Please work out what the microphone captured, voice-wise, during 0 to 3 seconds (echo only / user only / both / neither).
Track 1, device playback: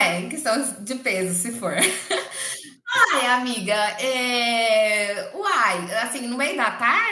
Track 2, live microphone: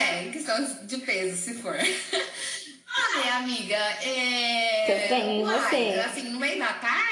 echo only